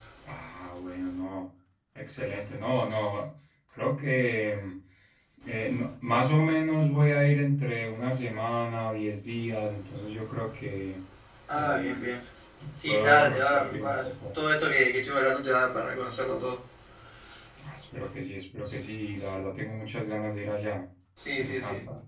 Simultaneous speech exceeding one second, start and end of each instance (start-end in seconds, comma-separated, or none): 12.9-14.1